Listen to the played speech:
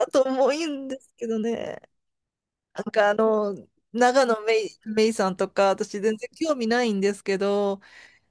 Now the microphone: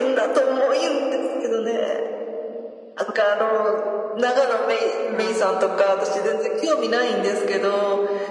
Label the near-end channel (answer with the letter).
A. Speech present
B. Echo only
A